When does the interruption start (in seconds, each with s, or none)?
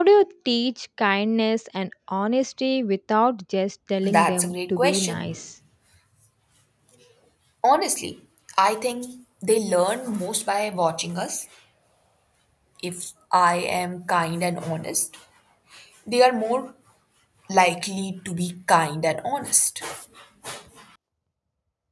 4.0 s